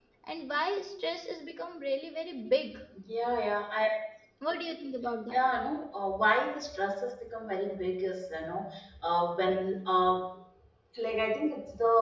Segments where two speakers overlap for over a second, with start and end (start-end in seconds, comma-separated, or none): none